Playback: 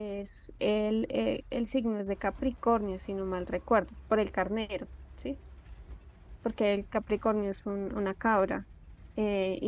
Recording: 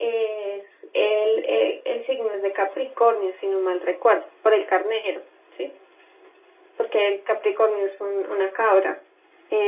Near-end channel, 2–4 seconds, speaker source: echo only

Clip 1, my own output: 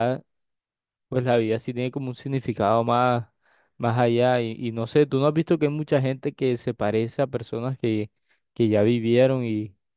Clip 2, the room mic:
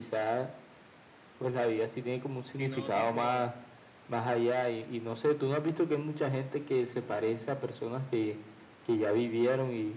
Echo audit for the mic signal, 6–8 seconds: echo only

